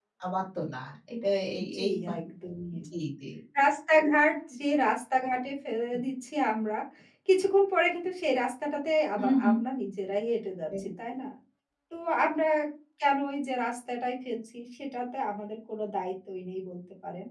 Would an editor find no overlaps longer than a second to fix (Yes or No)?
Yes